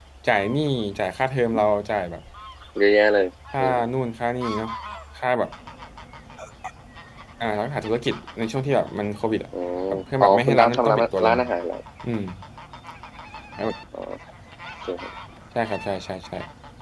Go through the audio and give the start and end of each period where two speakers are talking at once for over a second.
9.9-11.4

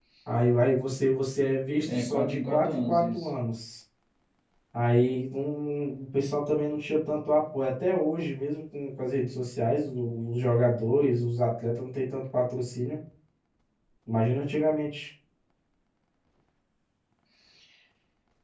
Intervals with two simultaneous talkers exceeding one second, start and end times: 1.9-3.3

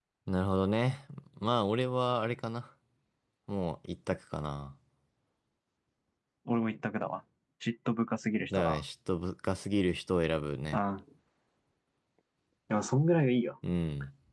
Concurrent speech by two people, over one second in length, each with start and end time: none

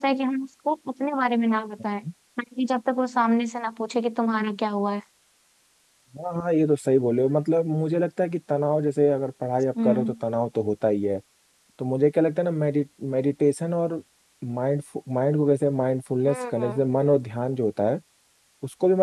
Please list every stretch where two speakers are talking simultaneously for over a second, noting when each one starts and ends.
none

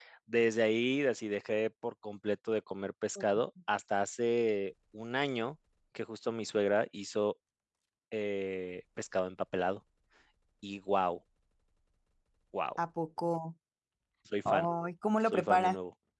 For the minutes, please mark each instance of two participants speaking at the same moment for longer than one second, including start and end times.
none

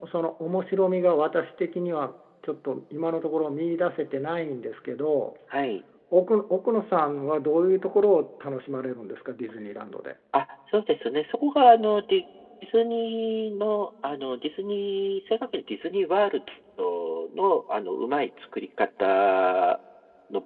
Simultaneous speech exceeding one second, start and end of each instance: none

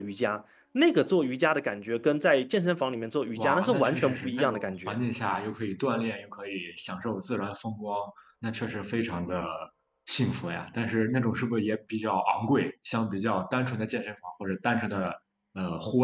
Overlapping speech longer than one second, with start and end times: 3.3-5.0

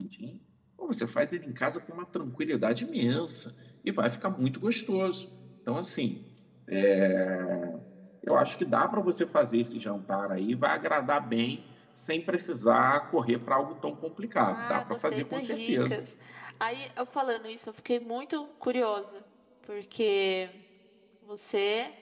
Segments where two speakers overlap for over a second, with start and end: 14.4-16.0

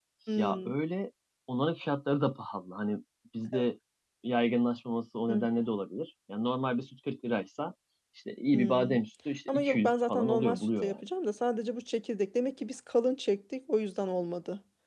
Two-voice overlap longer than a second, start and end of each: 9.5-11.0

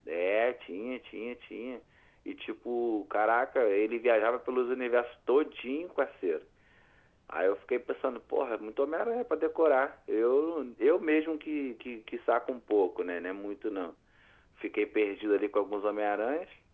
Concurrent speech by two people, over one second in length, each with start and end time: none

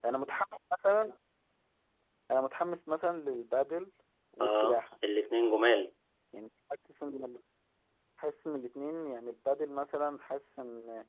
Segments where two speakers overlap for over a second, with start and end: none

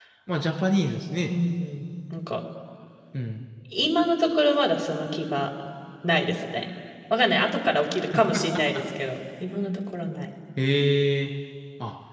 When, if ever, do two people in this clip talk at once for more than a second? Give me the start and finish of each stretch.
none

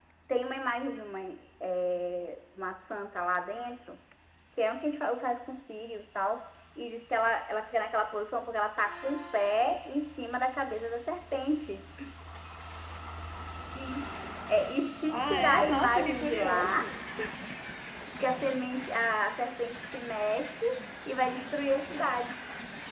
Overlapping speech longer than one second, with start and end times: 15.1-16.9

